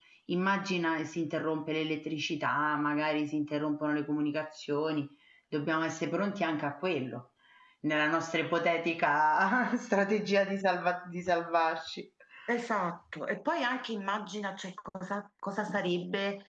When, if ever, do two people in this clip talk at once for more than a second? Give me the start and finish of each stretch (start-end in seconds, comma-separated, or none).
none